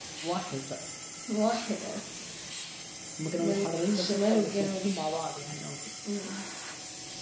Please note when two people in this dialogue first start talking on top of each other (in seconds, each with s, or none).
3.4 s